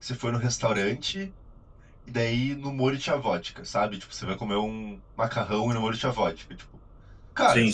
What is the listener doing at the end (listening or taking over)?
listening